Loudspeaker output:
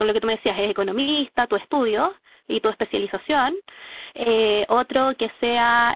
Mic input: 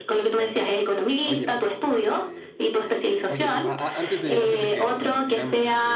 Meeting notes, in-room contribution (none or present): present